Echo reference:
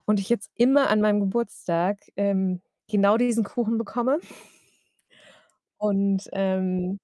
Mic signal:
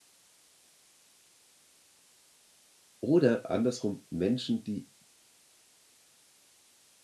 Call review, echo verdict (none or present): none